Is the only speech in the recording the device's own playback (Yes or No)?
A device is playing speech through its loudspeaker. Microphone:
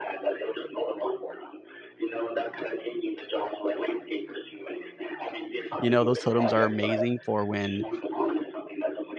No